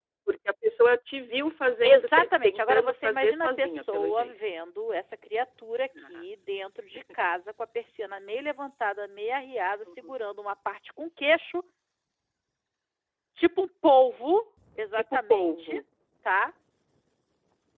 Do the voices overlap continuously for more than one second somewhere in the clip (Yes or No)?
Yes